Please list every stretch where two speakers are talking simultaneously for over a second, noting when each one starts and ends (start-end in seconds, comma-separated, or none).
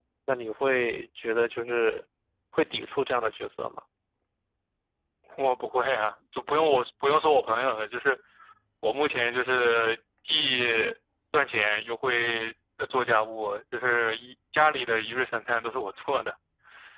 none